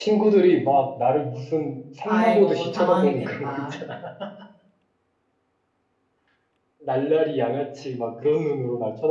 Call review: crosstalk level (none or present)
present